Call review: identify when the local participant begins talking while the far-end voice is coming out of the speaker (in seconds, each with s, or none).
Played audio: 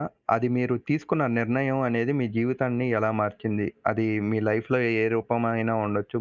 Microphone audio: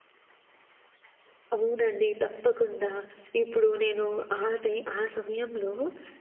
1.5 s